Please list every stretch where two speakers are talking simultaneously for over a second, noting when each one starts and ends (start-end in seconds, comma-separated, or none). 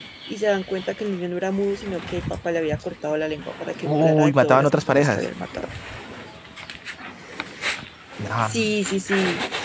3.8-5.2